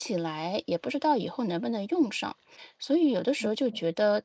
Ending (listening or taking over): listening